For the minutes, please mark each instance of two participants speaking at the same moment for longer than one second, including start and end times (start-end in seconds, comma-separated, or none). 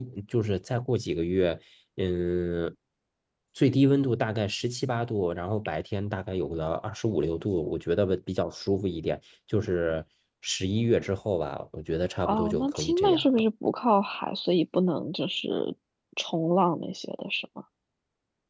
12.2-13.5